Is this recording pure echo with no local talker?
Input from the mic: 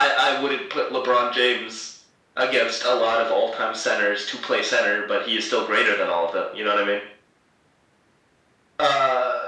Yes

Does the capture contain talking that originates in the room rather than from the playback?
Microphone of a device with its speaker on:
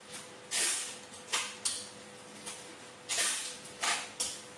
No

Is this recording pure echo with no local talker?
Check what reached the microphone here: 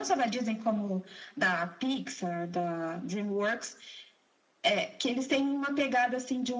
Yes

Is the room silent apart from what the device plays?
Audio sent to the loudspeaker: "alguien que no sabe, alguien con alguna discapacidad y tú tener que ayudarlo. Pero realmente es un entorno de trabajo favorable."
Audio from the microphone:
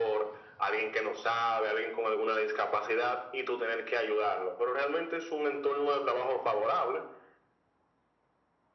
Yes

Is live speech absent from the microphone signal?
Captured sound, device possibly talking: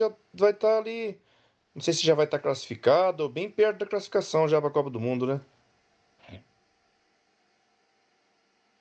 No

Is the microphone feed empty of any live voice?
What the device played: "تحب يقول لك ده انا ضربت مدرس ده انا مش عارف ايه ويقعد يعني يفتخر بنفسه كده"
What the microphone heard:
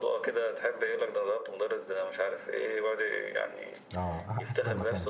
No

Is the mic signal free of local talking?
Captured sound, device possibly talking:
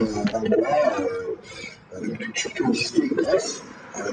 Yes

